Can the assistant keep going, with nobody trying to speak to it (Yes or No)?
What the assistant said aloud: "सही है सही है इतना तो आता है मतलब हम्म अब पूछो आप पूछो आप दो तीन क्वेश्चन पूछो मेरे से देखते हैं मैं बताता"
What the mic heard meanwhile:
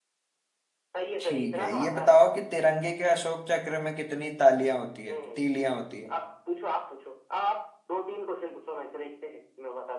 No